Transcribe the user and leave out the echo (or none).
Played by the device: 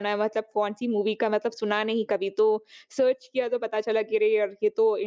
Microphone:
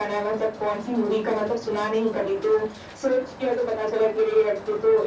none